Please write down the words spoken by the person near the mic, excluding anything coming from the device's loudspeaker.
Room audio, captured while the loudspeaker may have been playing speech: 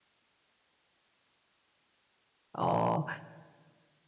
어,

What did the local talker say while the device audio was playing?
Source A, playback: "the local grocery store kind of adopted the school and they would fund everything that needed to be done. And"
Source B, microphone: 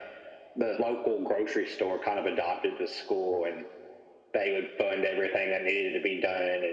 none

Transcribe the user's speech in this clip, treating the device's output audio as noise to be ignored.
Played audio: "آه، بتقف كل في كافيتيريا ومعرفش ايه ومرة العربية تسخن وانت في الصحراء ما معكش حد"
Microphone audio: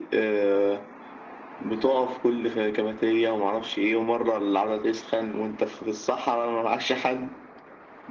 none

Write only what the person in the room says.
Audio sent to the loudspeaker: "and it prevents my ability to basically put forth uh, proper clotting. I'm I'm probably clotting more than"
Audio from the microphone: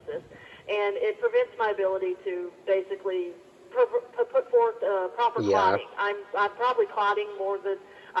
Yeah,

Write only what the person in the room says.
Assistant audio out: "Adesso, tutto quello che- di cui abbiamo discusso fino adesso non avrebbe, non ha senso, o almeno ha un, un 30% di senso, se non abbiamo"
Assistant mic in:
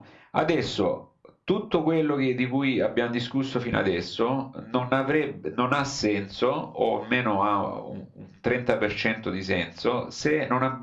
none

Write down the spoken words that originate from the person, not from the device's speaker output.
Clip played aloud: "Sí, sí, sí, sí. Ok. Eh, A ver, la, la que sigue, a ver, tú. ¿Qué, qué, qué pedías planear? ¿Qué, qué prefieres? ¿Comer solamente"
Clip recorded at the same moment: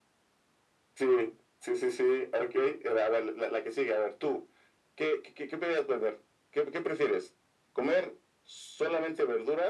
none

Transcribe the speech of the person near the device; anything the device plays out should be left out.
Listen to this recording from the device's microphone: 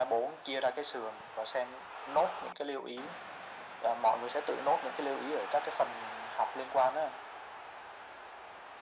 none

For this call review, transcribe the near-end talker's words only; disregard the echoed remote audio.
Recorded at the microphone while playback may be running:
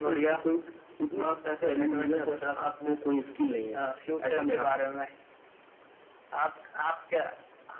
none

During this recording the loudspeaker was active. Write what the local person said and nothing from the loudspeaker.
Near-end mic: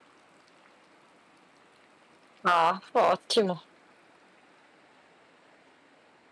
Ah, ottimo.

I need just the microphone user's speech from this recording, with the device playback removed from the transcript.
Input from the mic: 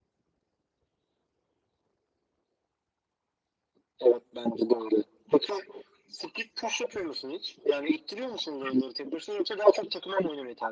none

